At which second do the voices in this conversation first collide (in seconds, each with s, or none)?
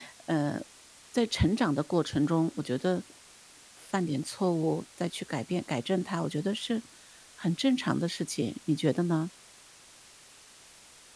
none